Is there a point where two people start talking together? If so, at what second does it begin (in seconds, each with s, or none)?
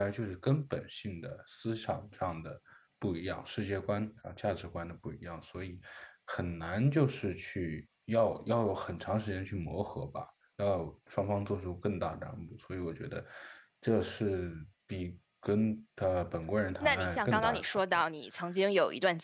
16.8 s